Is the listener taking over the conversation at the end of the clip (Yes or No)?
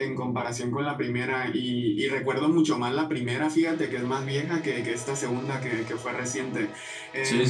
No